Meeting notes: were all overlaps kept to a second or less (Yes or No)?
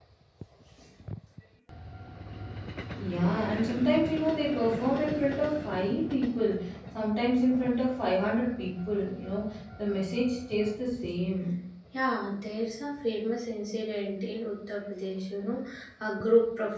Yes